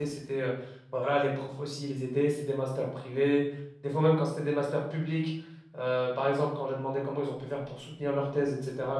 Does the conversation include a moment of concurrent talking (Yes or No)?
No